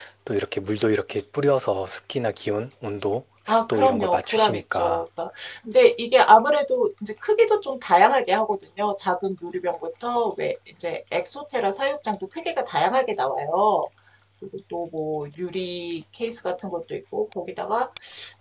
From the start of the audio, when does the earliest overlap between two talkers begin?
3 s

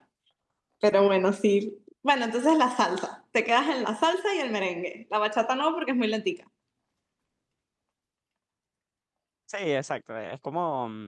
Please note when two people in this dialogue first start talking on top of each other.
none

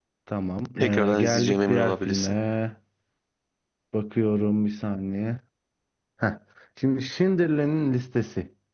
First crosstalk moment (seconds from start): 1 s

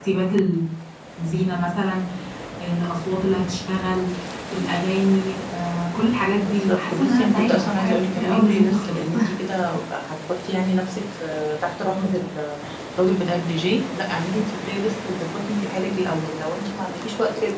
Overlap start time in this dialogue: 6 s

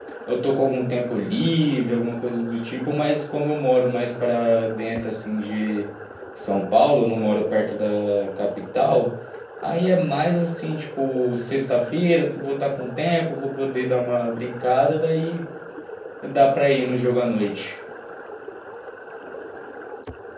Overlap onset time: none

